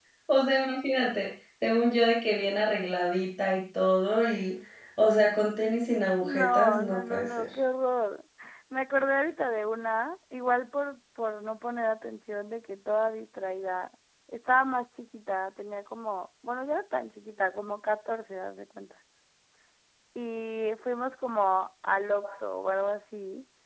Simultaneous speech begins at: 6.2 s

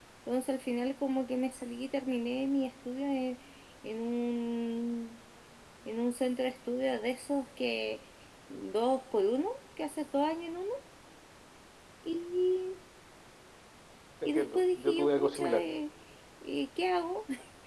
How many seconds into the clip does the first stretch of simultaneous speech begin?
14.2 s

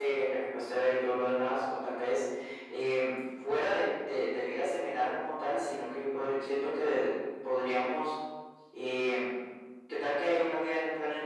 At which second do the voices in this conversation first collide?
none

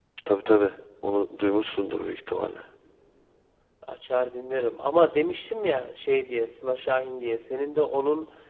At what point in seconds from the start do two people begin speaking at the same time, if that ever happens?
none

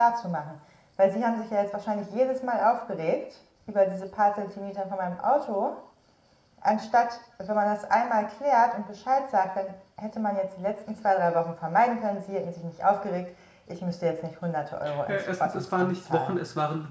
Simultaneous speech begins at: 14.9 s

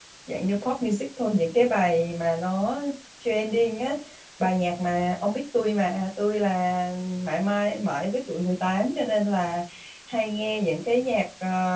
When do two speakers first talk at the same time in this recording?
none

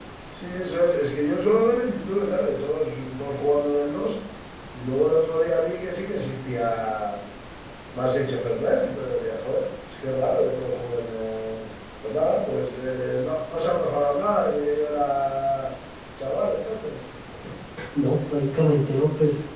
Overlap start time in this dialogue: none

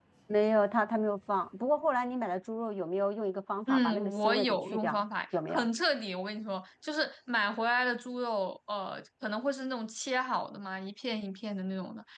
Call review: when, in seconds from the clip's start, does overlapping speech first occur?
3.7 s

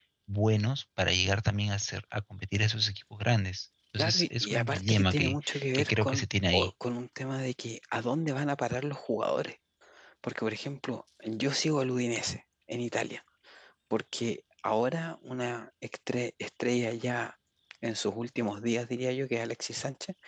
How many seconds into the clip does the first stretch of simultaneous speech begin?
4.0 s

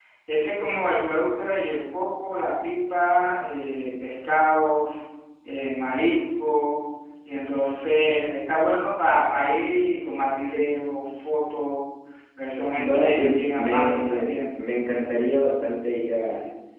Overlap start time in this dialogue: 12.8 s

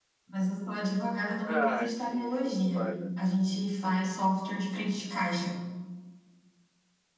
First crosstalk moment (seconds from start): 1.4 s

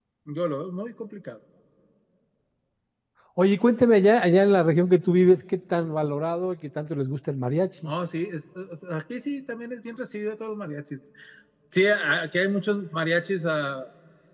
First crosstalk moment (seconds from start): none

